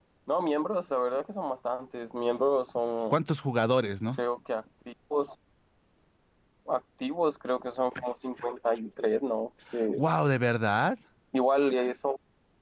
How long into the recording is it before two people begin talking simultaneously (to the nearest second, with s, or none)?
none